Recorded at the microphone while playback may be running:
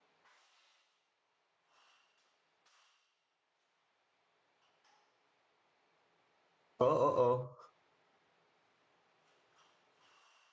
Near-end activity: present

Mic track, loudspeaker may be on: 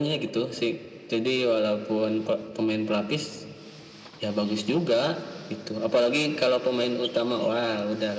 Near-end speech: none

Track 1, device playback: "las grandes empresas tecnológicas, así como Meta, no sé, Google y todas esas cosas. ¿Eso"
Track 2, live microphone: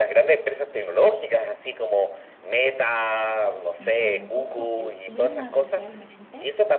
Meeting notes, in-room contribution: present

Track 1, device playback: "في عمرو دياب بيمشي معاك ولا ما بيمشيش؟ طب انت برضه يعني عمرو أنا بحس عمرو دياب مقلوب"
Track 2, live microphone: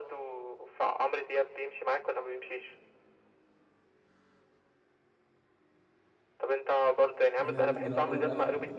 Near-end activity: present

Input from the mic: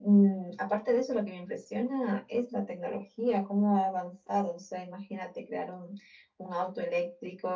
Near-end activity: none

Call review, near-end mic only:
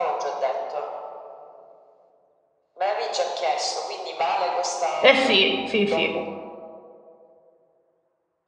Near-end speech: present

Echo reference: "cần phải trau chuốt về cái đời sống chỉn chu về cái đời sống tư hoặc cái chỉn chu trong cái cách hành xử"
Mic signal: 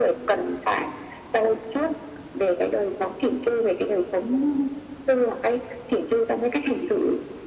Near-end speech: none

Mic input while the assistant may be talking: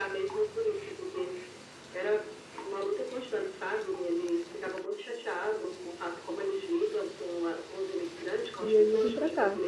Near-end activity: present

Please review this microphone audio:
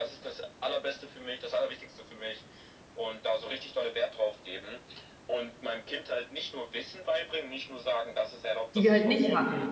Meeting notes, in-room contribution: present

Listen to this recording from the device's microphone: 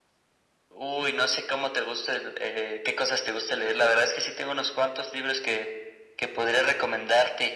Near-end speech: none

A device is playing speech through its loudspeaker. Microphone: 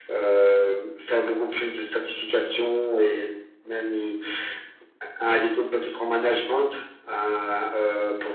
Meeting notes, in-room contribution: none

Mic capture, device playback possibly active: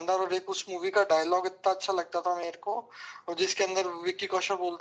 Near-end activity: none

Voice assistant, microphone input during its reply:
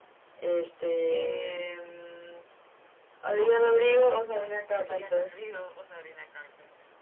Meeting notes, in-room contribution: present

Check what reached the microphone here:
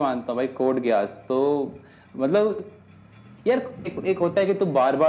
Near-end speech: none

